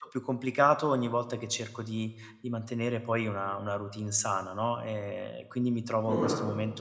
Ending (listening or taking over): listening